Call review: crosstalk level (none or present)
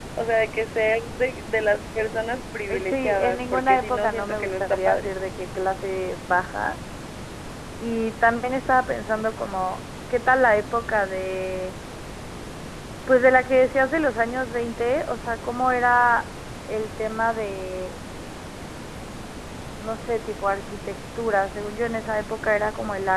present